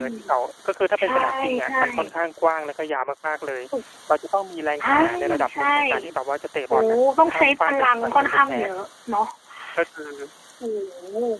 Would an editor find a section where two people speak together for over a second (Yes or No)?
Yes